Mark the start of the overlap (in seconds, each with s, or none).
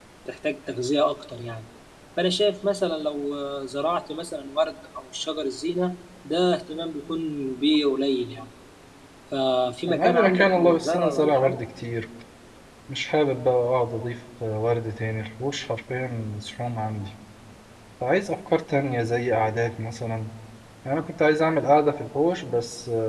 9.9 s